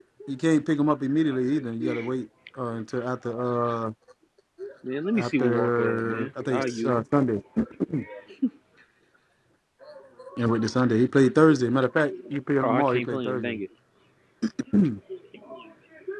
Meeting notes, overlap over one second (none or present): present